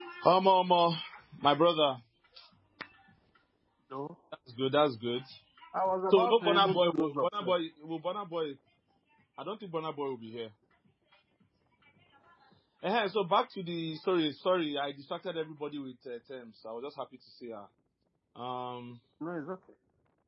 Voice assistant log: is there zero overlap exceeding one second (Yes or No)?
No